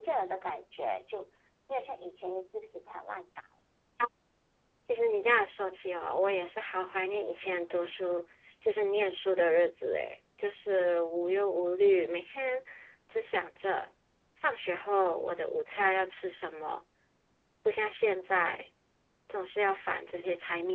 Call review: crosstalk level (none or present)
none